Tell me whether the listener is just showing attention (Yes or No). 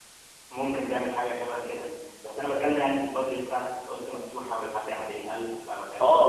No